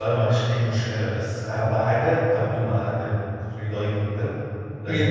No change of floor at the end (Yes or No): Yes